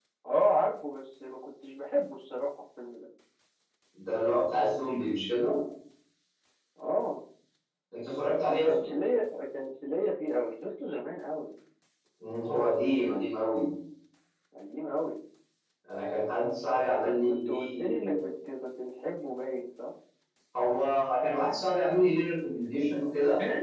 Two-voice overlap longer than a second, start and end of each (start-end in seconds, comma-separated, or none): 16.9-18.2